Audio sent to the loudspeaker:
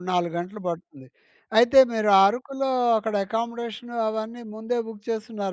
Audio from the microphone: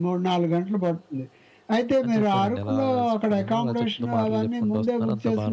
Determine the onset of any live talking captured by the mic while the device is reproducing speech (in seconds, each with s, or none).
2.0 s